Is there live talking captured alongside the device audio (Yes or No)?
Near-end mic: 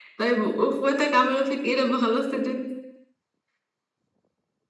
No